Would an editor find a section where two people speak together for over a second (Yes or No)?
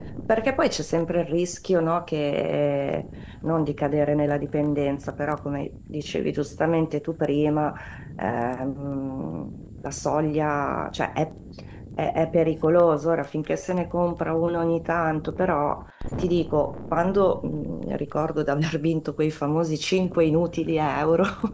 No